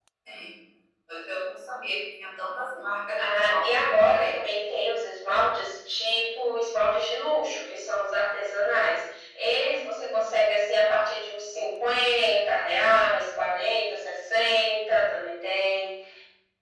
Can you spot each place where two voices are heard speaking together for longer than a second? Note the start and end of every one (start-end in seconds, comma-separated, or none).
3.2-4.6